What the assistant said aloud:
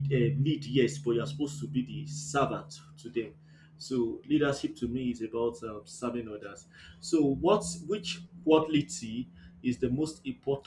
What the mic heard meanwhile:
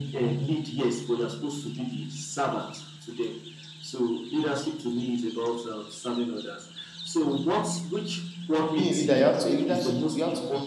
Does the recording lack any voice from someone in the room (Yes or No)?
No